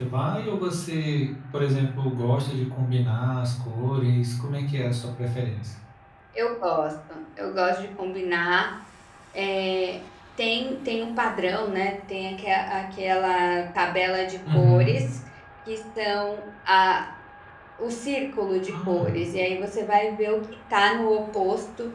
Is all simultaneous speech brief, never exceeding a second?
Yes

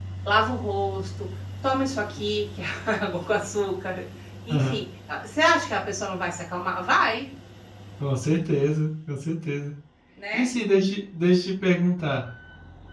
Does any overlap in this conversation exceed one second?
No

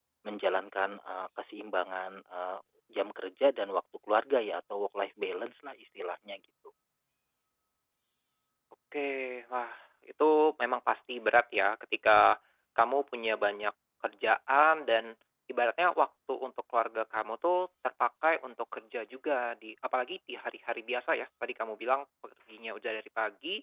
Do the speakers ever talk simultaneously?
No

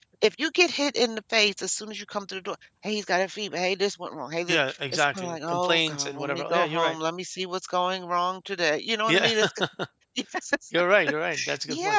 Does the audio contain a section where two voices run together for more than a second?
Yes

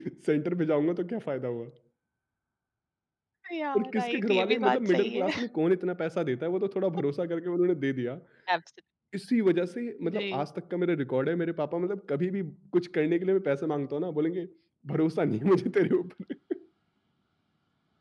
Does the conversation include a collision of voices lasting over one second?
Yes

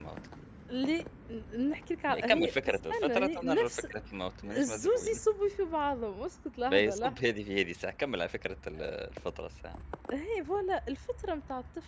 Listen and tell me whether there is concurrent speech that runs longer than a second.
Yes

